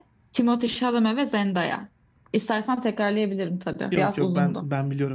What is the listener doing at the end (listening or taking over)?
taking over